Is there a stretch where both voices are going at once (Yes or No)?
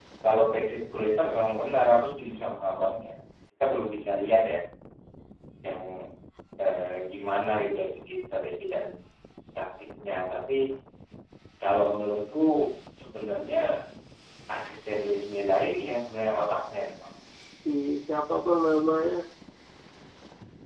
No